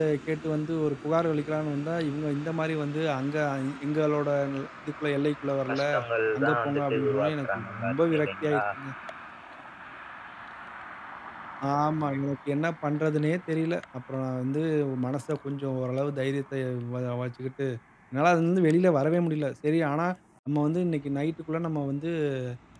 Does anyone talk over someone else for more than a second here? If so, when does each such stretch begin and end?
6.4-8.6

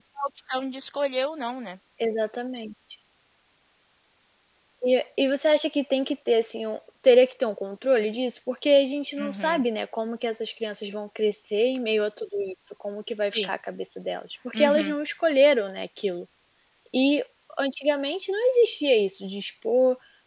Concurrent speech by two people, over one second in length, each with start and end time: none

